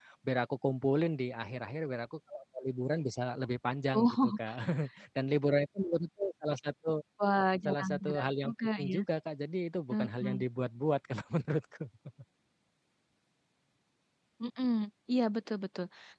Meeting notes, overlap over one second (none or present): present